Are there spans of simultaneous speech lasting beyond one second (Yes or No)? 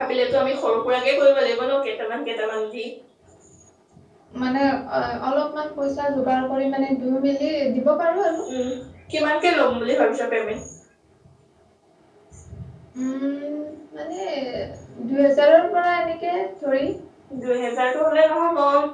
No